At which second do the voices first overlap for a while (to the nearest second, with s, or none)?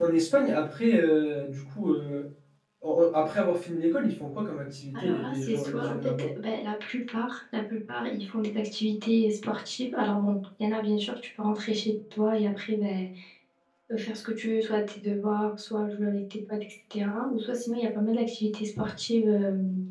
5 s